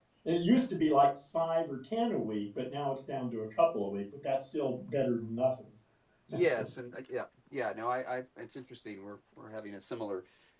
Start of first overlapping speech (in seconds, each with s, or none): none